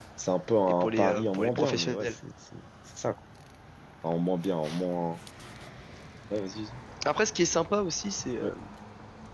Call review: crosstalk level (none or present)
present